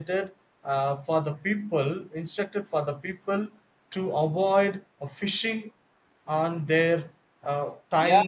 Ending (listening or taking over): taking over